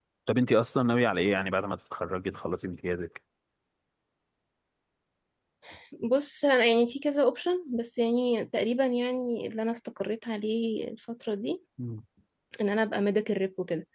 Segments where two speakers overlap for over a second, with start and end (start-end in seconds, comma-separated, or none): none